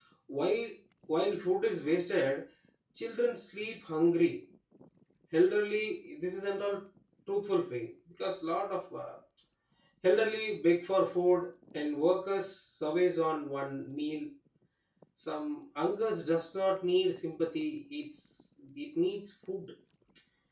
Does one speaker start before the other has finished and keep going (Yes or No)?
No